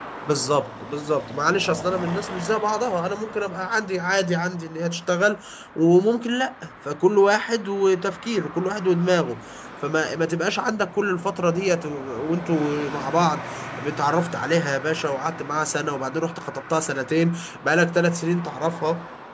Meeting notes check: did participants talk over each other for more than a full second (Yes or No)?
No